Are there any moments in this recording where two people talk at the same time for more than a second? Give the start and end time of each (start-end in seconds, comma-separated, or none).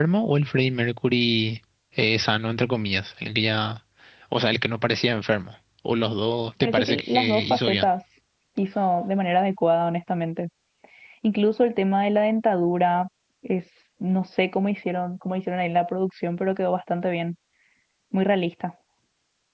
6.6-7.9